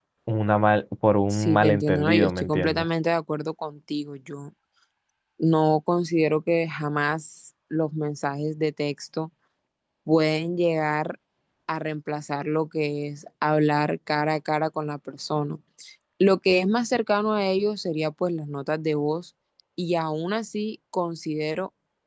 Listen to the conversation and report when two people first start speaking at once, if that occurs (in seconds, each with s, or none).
1.3 s